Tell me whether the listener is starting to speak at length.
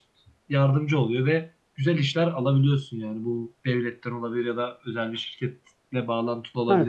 Yes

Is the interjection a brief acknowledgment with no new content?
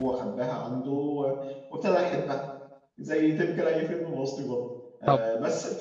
Yes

